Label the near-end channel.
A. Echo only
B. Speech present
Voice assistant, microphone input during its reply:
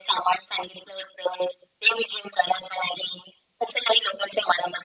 A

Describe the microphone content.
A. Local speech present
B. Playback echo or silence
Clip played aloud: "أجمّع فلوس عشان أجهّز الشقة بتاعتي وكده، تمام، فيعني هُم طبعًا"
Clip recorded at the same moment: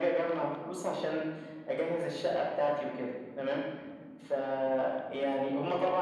B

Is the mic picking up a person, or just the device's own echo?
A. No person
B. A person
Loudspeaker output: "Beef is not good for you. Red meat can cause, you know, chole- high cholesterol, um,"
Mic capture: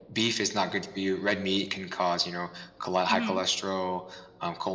B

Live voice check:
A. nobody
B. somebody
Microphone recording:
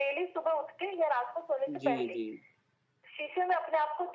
B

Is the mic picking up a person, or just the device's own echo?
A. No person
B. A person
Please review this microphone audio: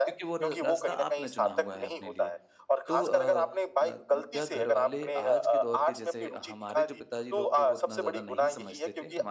B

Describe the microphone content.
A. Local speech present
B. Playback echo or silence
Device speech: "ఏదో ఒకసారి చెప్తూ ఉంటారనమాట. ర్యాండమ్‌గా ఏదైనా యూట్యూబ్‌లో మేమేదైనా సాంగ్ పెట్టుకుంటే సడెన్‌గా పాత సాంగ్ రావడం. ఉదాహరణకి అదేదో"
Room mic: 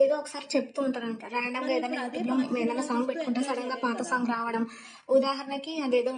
A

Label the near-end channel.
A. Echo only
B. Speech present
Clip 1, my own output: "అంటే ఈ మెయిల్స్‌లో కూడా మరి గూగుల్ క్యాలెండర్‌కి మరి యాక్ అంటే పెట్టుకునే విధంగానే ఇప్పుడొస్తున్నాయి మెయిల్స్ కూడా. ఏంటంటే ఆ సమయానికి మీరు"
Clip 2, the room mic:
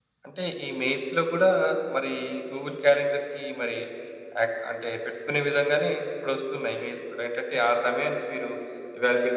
A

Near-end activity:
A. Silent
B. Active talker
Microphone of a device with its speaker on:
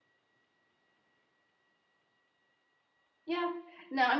B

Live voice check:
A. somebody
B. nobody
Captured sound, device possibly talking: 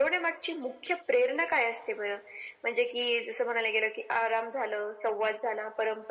B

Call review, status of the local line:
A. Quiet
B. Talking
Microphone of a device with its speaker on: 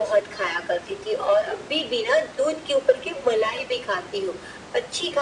A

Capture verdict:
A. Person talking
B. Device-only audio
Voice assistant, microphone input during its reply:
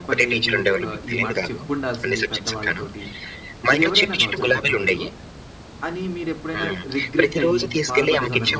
A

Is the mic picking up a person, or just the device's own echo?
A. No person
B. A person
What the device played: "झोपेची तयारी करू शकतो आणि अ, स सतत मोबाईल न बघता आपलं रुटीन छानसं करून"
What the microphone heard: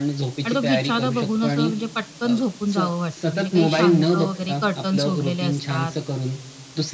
B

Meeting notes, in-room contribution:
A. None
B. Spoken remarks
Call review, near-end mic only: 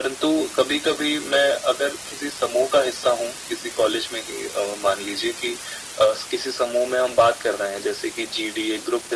A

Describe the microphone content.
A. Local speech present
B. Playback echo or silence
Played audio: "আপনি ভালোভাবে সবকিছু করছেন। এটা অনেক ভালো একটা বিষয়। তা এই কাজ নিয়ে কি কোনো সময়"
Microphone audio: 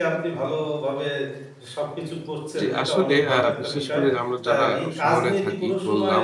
A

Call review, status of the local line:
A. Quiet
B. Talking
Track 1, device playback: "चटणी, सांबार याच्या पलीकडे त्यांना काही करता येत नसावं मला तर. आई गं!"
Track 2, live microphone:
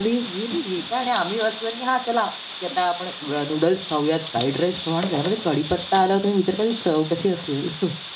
B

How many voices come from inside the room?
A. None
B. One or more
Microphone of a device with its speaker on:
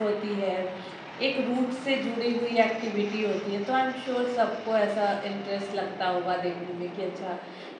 B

